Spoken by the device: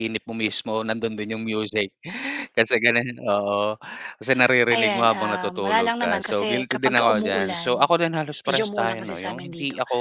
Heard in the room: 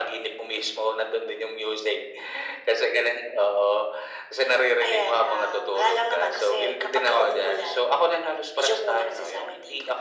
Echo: present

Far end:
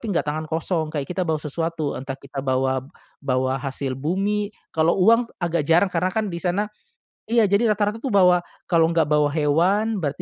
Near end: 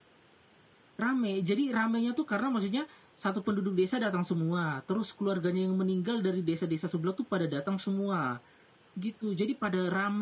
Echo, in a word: none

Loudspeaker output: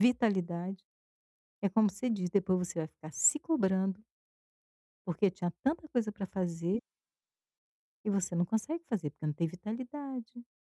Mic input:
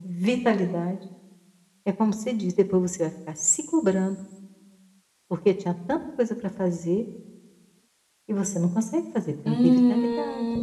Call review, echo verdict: present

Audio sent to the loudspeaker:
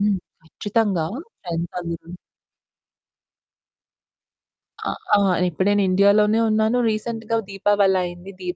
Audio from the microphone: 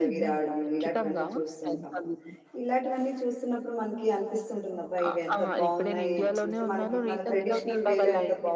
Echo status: present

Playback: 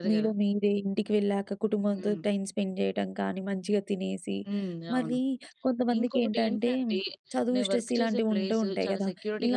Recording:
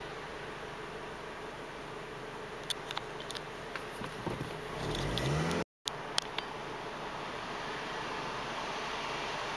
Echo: none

